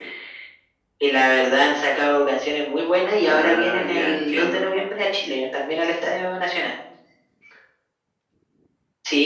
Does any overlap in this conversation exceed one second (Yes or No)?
Yes